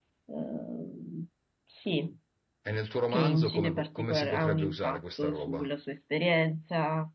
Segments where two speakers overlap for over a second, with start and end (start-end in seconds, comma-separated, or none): 3.1-5.7